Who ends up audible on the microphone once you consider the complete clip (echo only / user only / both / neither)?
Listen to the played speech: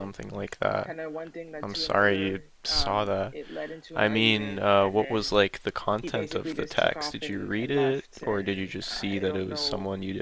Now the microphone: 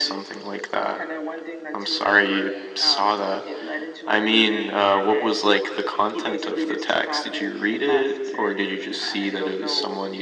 echo only